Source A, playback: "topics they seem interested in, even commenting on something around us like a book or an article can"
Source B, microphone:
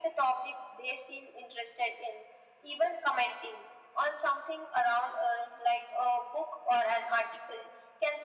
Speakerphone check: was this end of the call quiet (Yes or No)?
Yes